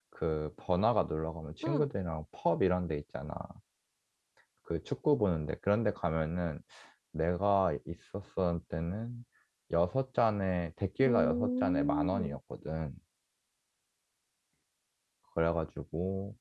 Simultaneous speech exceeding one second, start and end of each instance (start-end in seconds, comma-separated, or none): 11.1-12.3